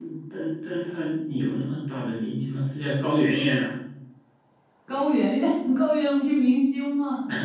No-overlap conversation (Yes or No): Yes